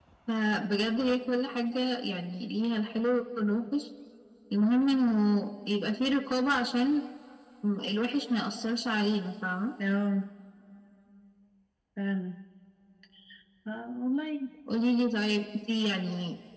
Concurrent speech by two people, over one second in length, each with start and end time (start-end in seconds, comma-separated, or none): none